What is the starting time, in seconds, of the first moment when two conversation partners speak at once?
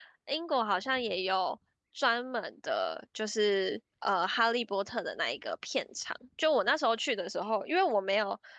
none

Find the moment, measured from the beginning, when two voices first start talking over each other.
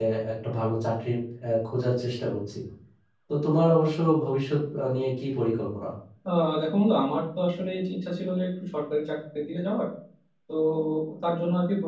none

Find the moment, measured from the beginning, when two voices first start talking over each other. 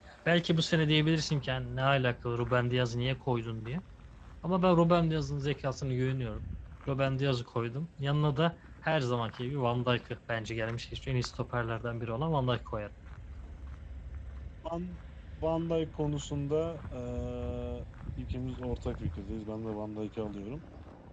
none

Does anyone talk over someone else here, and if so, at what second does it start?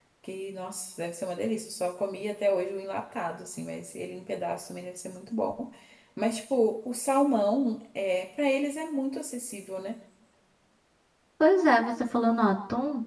none

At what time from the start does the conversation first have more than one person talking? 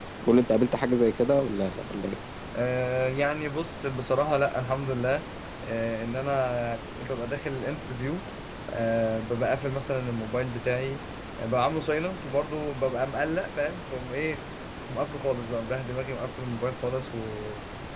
none

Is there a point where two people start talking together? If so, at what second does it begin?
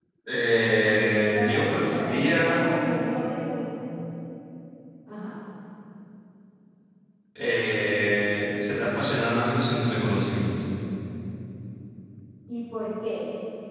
1.1 s

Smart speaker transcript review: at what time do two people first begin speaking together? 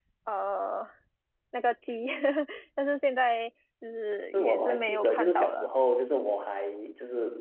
4.3 s

